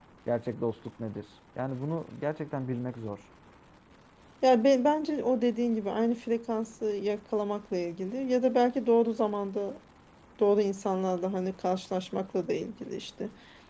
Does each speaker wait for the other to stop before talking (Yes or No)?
Yes